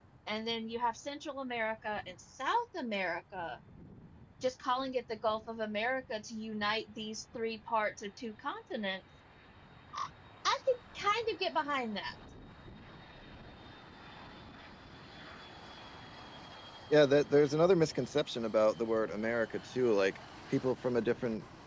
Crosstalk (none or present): none